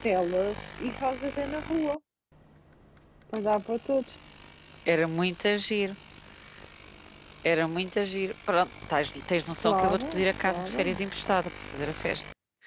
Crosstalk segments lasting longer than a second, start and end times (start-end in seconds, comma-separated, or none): 9.6-11.0